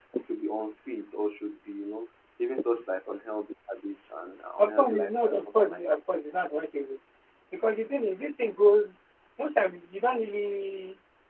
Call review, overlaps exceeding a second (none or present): present